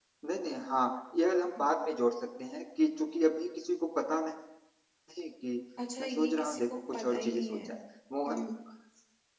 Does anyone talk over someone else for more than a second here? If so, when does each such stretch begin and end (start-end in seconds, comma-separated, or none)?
6.0-7.7